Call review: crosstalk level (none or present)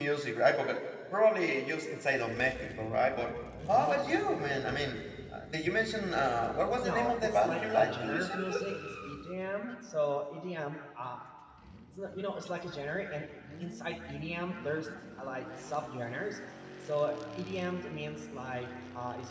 present